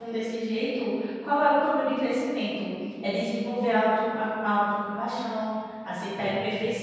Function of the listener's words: listening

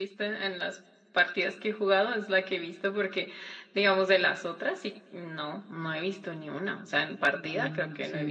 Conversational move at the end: taking over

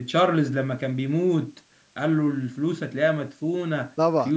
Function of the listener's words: taking over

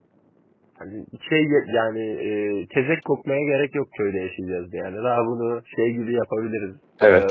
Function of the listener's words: taking over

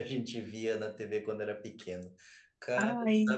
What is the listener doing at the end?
listening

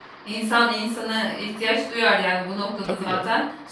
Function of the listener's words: listening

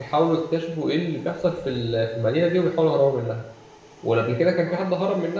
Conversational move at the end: listening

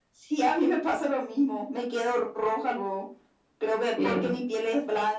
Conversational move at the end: listening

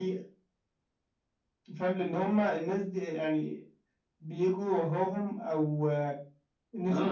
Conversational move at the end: taking over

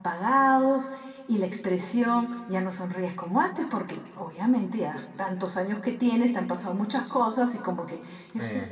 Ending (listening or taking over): listening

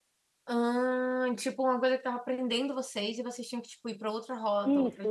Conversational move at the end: taking over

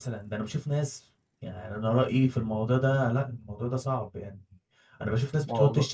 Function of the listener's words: listening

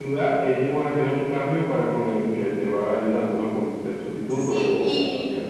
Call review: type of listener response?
taking over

